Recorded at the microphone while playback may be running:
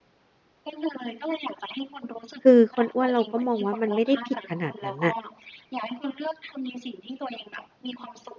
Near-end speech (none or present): present